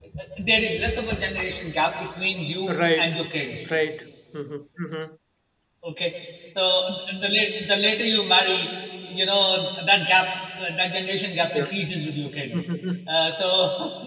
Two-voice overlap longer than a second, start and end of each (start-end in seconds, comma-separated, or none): none